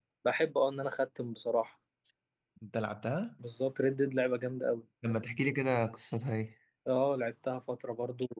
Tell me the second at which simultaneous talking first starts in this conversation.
none

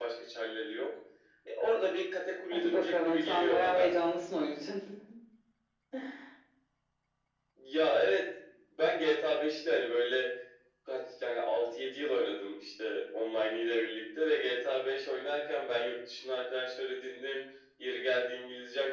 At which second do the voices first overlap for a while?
2.5 s

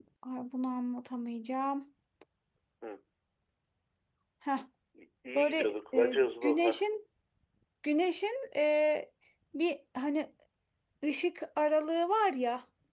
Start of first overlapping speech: 5.3 s

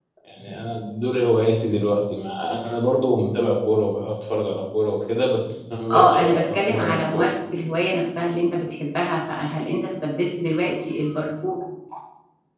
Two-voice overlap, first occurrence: 5.9 s

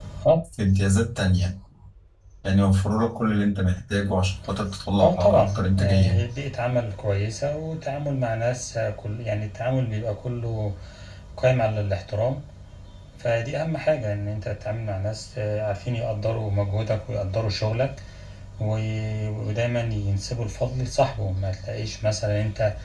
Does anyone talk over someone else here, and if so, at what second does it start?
5.0 s

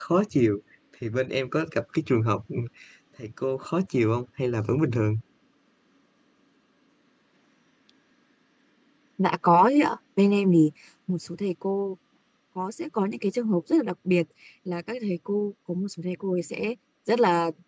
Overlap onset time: none

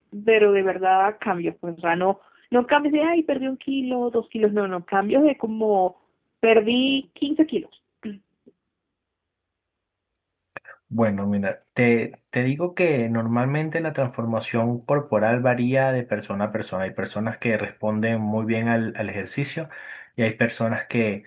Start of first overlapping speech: none

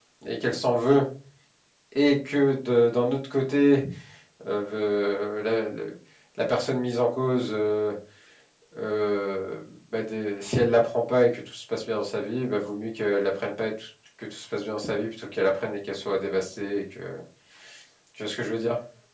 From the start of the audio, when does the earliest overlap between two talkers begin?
none

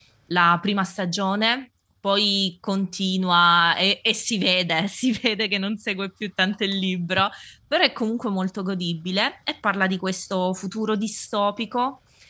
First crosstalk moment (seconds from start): none

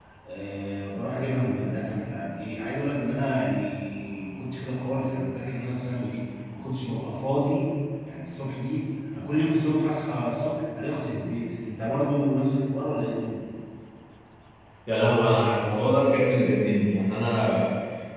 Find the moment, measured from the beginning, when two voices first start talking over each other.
none

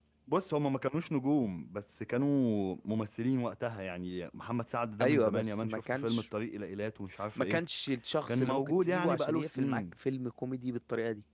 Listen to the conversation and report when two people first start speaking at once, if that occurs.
5.0 s

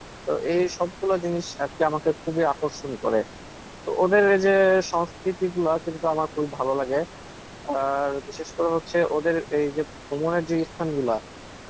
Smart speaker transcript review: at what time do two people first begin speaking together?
none

